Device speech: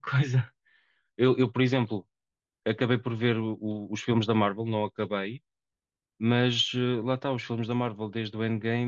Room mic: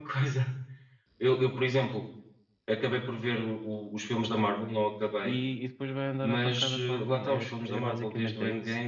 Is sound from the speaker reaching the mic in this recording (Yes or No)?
Yes